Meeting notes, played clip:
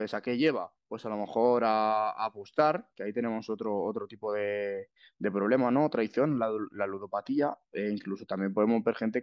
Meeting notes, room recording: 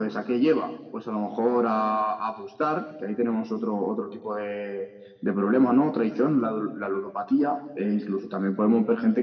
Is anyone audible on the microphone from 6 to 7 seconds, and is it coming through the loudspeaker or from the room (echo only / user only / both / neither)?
echo only